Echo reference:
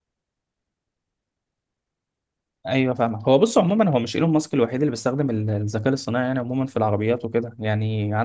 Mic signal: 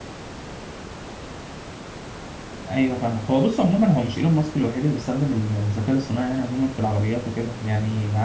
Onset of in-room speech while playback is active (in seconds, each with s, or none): none